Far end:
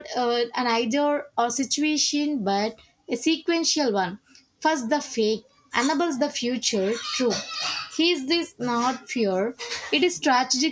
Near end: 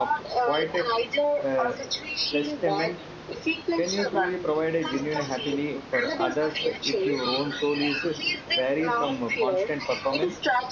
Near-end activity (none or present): present